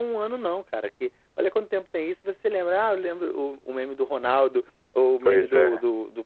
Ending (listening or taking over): listening